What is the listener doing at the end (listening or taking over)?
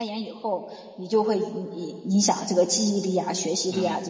taking over